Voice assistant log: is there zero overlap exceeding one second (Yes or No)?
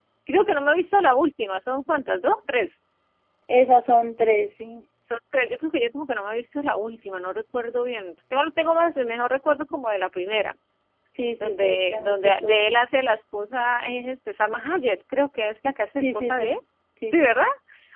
No